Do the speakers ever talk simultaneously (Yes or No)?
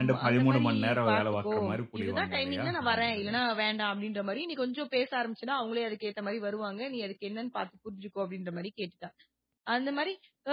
Yes